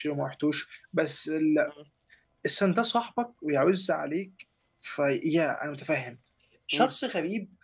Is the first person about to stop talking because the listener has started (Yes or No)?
No